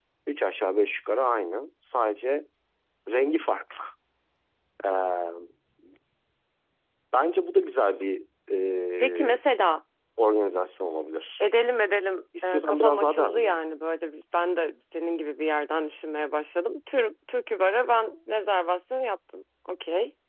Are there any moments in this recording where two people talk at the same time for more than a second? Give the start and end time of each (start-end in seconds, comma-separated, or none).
12.4-13.7